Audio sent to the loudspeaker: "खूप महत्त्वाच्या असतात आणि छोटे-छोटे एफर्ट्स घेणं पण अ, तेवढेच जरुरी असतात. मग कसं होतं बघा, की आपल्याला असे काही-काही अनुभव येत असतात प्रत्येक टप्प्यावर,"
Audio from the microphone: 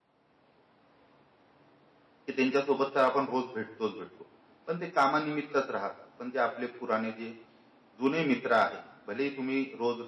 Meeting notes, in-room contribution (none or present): present